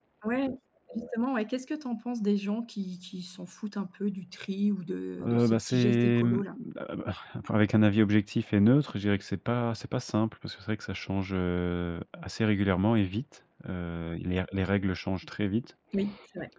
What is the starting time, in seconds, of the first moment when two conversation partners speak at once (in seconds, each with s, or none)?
5.2 s